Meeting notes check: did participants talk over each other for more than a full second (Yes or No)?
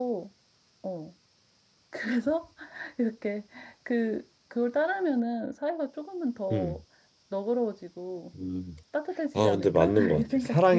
Yes